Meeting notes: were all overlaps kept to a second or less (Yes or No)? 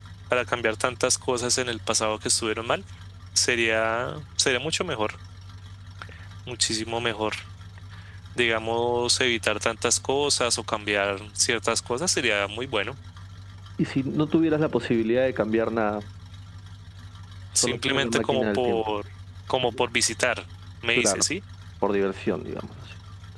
No